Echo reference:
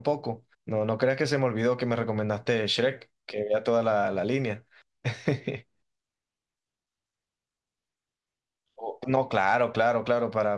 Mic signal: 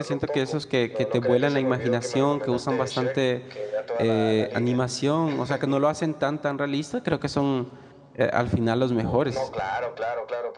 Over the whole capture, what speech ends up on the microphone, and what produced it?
both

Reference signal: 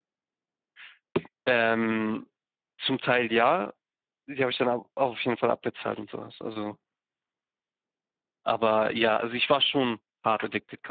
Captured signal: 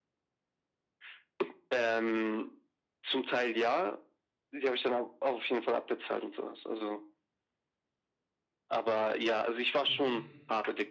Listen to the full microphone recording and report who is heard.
both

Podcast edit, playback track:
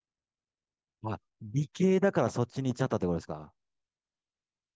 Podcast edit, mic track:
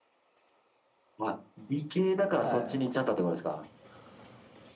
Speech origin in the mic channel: both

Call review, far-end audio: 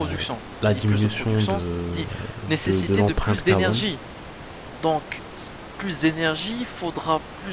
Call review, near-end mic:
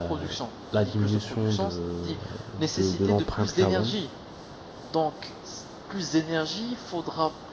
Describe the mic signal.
echo only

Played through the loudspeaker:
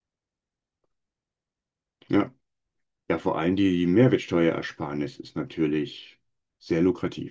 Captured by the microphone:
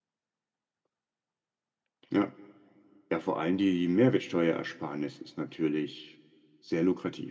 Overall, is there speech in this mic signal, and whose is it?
echo only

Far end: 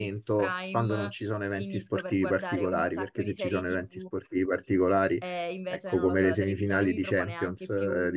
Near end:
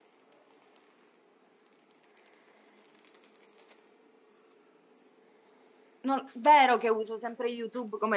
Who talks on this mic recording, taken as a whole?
user only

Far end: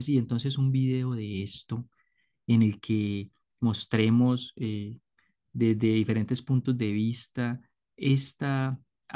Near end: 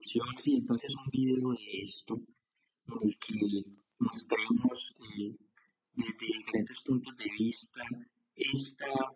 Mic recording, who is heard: echo only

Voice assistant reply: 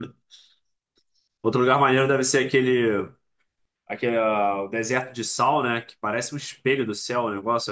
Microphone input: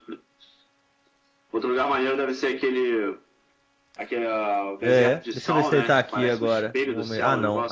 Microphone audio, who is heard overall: both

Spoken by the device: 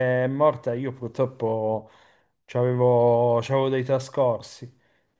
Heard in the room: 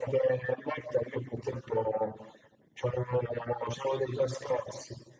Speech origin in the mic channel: echo only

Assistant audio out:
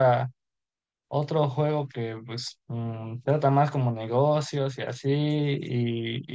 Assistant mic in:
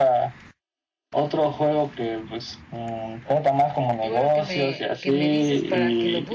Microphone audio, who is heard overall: both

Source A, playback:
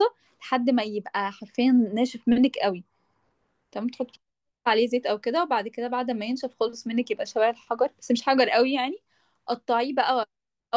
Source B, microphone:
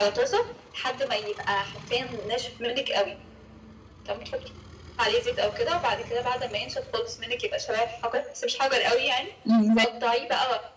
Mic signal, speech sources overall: both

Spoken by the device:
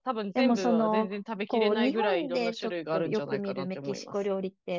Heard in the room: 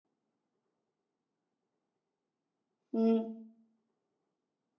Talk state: user only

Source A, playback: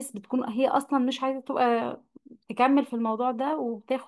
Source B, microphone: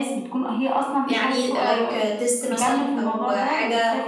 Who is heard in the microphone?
both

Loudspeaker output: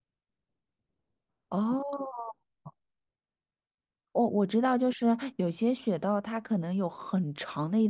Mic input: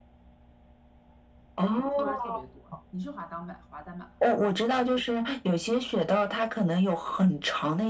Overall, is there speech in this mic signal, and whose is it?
both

